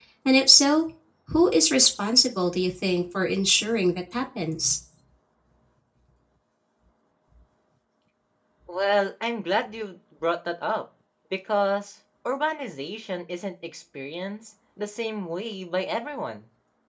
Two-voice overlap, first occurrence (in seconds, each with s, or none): none